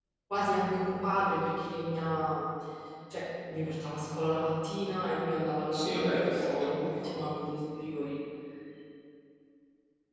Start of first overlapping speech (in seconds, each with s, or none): 5.7 s